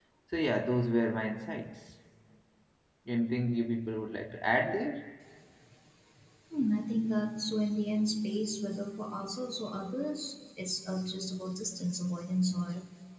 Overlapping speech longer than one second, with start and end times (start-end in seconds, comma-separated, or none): none